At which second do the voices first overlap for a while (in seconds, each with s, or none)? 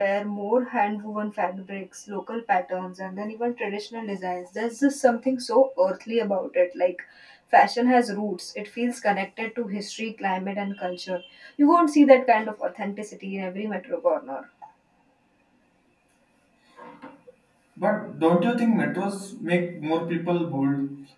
none